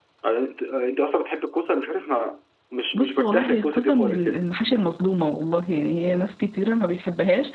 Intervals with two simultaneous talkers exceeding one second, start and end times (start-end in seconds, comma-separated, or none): 2.9-4.5